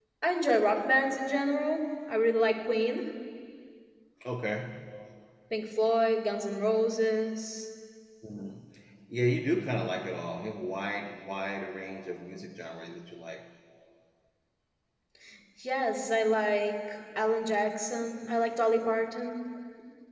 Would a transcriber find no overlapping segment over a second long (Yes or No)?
Yes